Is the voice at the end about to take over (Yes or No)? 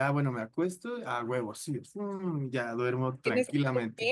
Yes